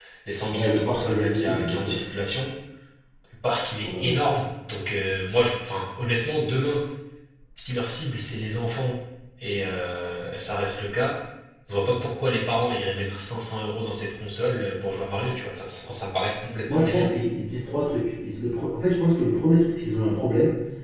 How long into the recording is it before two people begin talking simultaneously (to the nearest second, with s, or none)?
1 s